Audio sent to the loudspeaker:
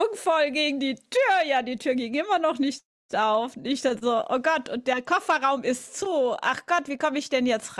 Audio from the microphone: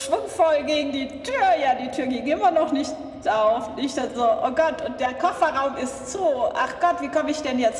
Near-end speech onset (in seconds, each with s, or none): none